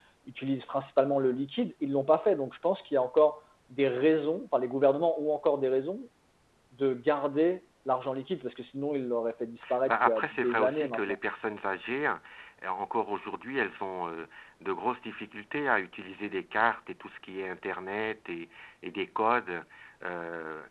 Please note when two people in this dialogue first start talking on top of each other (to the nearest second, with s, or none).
10 s